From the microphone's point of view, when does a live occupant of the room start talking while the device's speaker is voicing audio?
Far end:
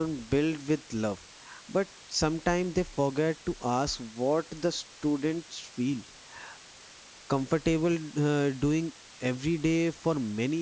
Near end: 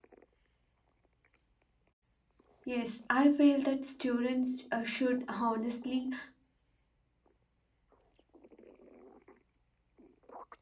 2.6 s

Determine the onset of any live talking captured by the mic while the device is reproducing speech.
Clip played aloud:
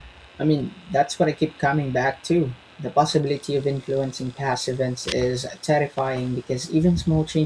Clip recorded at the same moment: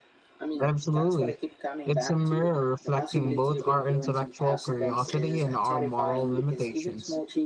0.6 s

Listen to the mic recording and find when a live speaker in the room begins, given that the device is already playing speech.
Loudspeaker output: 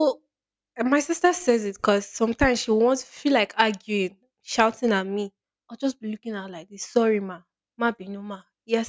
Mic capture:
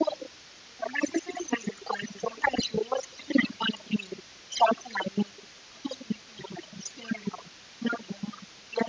none

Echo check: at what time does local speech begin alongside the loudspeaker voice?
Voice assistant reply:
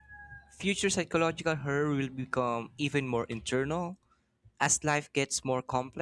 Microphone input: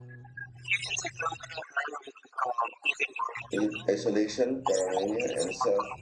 3.5 s

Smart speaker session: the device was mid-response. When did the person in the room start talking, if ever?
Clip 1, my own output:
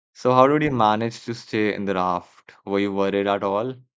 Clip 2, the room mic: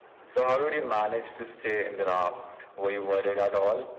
none

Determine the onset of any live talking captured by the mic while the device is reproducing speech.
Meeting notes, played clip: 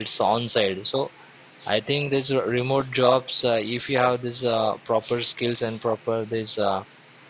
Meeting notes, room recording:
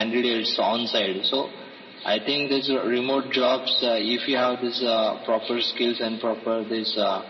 none

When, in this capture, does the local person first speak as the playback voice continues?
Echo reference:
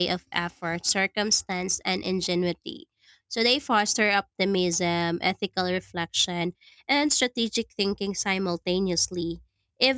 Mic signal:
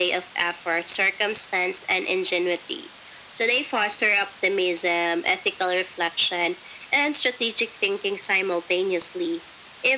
none

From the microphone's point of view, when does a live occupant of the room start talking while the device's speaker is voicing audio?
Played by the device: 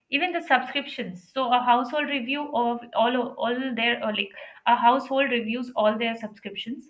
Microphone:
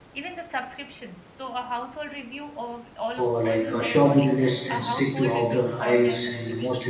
3.1 s

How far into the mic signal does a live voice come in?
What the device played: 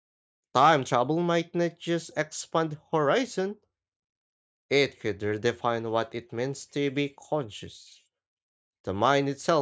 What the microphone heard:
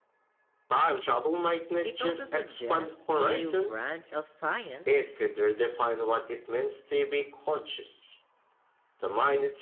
1.8 s

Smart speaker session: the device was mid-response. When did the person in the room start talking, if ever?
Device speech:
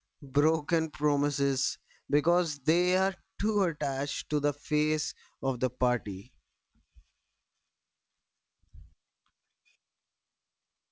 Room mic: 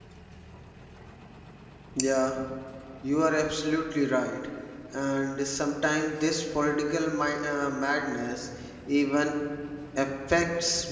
2.0 s

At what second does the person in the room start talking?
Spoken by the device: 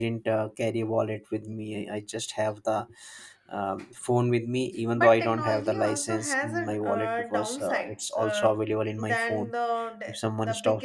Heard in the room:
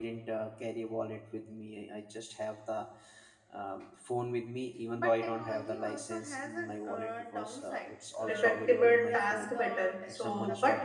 8.2 s

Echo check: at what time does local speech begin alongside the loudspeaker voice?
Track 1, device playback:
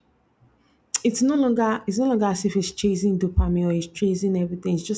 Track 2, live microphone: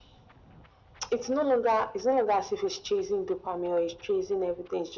none

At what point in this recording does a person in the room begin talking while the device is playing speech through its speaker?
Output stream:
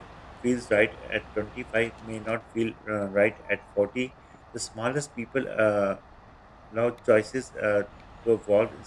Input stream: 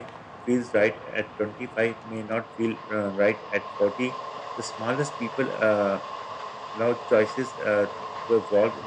none

